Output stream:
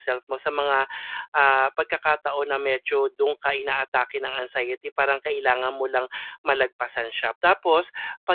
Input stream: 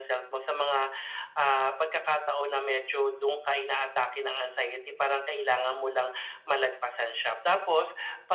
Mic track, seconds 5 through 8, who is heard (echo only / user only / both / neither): echo only